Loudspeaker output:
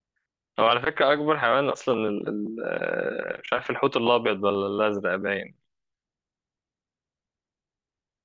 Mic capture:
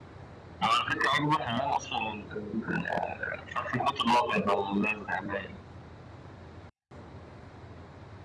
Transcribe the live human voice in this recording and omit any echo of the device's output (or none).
none